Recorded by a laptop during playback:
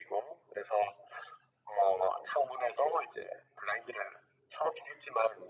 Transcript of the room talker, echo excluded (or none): none